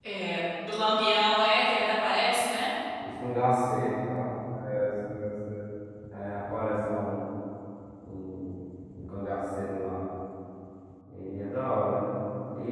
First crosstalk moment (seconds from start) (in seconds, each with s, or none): none